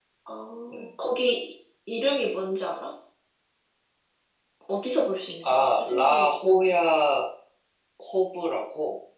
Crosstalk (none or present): present